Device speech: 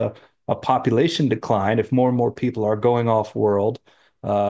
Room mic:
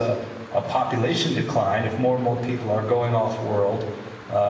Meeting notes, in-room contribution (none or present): none